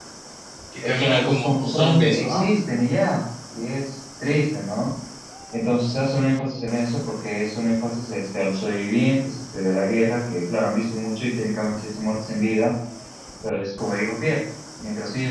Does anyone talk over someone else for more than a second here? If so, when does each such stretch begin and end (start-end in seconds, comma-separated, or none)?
0.8-2.4